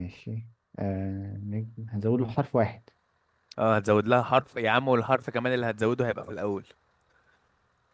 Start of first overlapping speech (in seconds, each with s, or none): none